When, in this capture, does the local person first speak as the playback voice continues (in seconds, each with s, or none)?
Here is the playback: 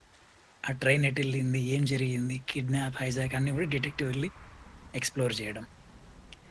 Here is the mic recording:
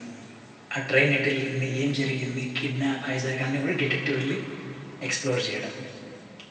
none